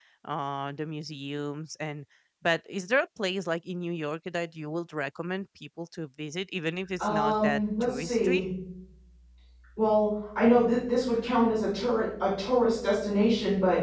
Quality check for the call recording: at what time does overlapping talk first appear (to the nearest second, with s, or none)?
7 s